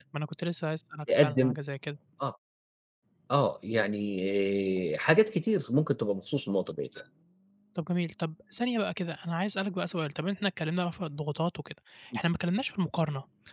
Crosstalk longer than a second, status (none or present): none